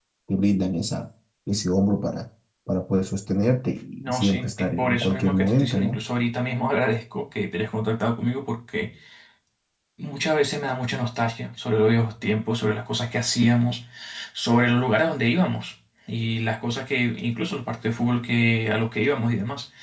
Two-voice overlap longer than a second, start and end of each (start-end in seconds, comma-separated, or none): 4.0-6.0